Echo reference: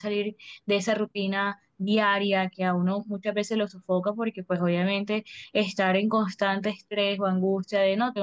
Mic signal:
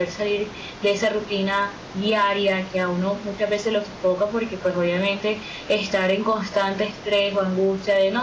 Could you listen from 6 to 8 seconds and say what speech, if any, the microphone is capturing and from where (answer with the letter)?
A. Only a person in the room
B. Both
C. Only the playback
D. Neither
C